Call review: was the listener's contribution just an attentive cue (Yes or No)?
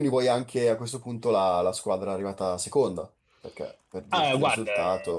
No